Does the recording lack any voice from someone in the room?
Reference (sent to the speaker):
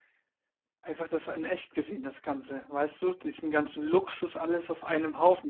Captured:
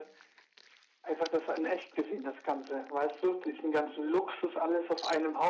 Yes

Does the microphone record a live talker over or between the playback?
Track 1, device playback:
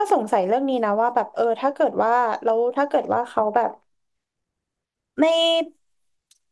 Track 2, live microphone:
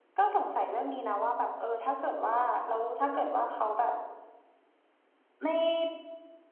No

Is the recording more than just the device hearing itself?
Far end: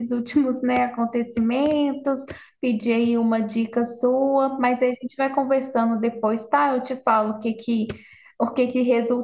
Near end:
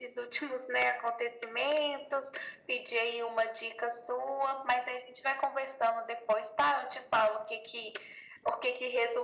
No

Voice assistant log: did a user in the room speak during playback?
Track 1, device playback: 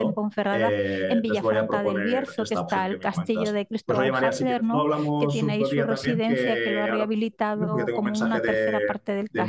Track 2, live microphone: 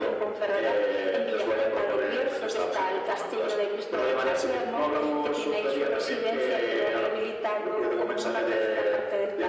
No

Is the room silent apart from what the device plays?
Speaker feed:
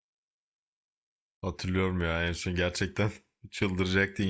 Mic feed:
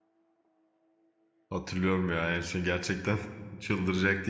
Yes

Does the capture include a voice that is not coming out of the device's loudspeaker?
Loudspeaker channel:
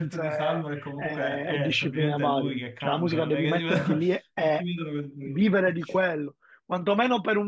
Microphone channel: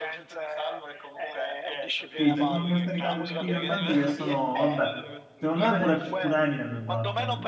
Yes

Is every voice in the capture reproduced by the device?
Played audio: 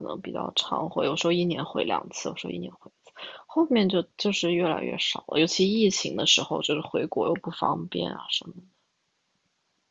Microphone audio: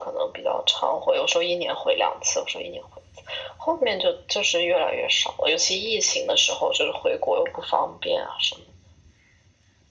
Yes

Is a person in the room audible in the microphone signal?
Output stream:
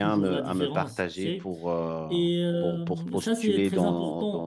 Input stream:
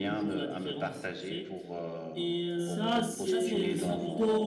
Yes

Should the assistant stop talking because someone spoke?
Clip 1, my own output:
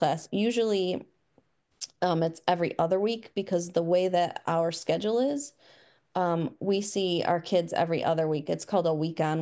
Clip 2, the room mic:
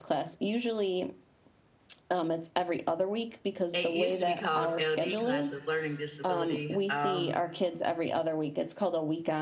Yes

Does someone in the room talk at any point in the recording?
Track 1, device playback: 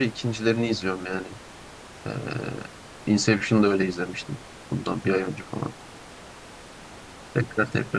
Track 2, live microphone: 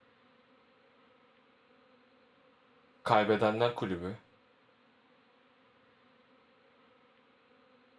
Yes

